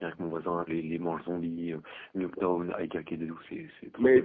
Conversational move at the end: taking over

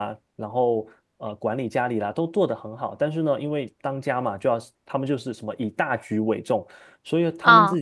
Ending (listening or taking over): listening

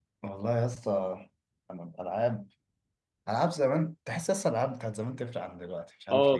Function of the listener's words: taking over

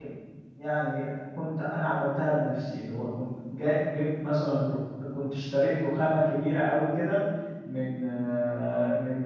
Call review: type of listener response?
listening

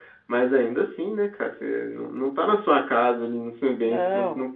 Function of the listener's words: listening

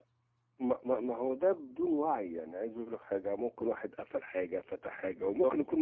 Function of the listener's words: listening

